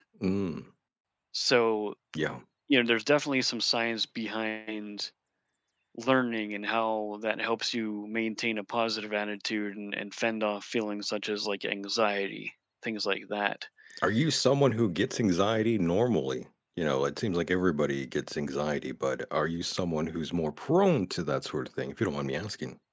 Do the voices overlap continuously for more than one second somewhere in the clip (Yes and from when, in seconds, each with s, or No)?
No